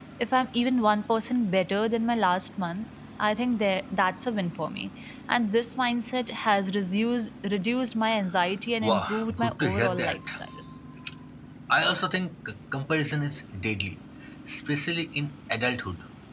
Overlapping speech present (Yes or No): Yes